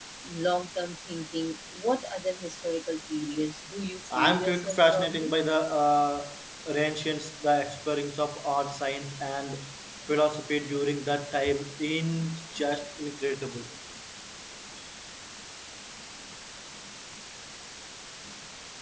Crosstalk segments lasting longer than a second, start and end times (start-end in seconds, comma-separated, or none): 4.1-5.3